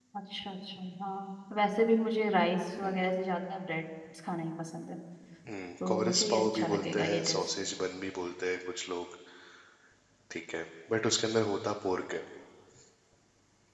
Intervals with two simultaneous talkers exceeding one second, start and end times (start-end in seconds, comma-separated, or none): 5.9-7.4